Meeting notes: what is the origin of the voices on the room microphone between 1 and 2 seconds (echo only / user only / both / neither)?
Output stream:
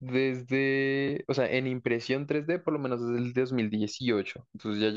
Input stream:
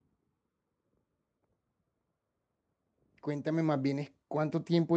neither